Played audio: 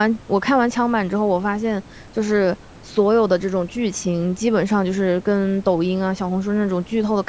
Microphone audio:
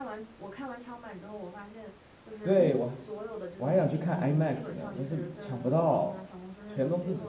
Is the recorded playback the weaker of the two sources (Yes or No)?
Yes